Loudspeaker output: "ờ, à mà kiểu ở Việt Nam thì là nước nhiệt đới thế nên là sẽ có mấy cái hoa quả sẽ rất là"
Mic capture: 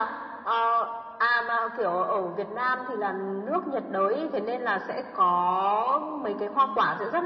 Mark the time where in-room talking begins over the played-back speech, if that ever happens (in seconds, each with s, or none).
none